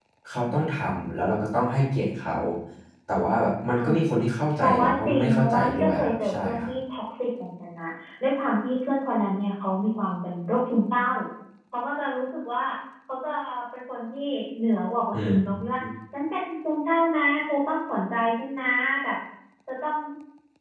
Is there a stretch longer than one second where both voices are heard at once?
Yes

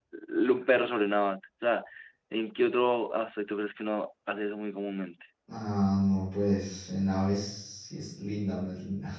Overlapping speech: No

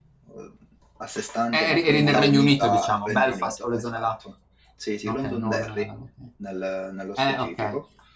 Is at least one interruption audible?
Yes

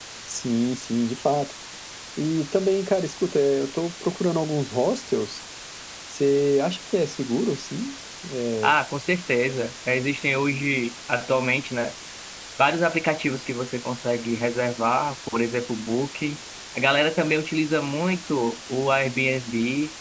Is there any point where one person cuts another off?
No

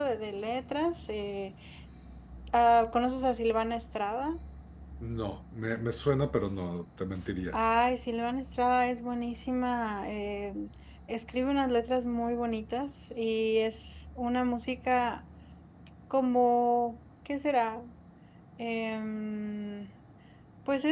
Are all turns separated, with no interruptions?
Yes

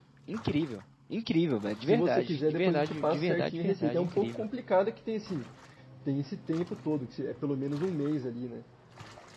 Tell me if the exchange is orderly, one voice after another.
No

